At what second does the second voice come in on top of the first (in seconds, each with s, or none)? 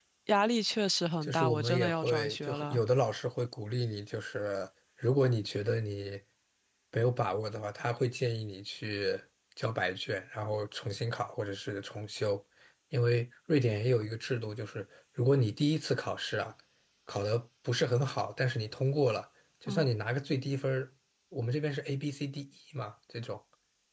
1.2 s